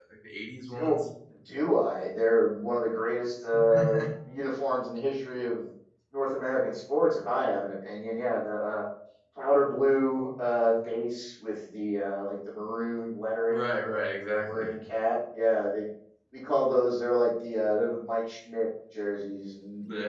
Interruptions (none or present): present